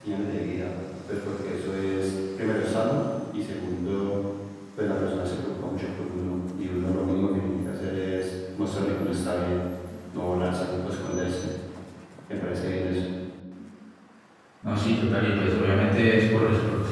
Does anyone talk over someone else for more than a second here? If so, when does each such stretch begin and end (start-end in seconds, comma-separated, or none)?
none